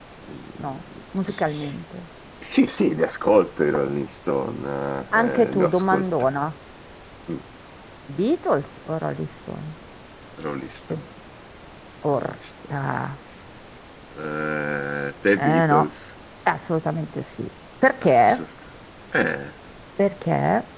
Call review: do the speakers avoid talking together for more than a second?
No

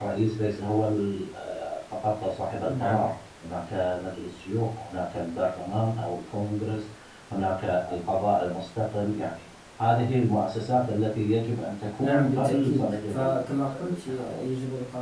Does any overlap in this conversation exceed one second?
Yes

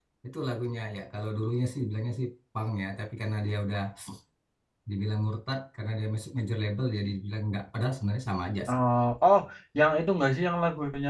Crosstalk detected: No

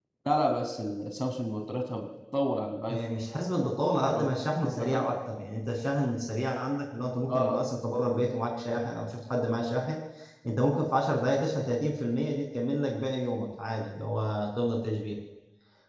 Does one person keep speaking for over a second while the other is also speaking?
No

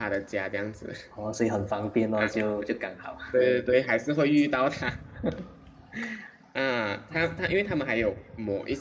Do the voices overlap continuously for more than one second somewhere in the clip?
No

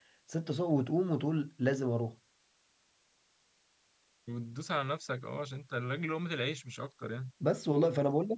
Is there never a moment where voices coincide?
Yes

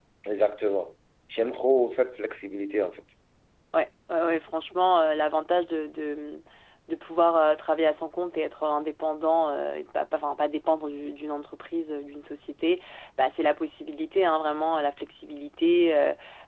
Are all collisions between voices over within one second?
Yes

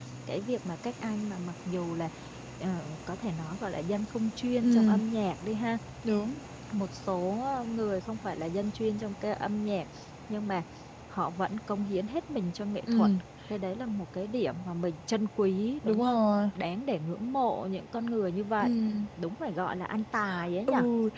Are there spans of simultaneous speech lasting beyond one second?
No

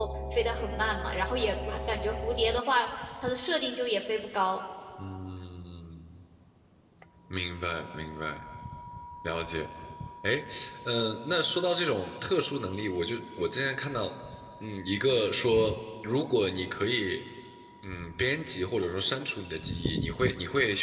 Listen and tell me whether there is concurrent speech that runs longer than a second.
No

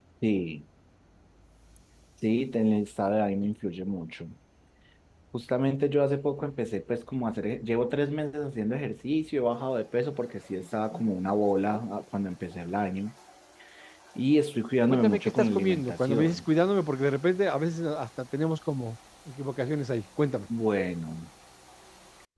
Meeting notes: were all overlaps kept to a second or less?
No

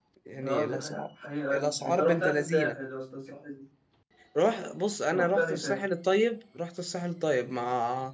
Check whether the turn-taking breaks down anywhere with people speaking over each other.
Yes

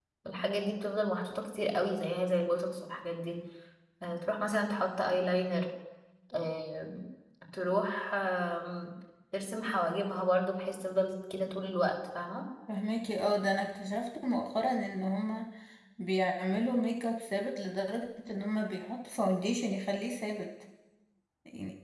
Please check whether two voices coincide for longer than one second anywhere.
No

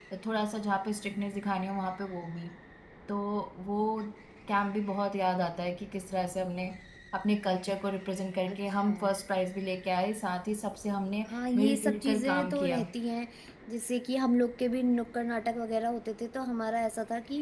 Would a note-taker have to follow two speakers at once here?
Yes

